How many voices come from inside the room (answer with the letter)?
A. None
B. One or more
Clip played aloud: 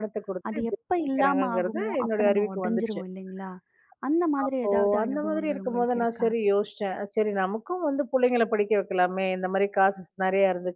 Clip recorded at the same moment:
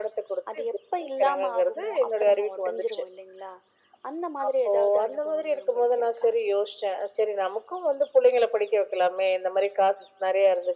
A